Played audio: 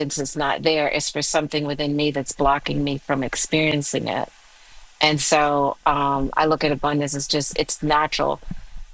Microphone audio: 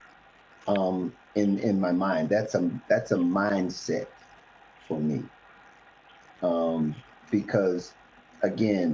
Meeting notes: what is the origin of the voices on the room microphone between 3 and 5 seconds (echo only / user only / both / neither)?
user only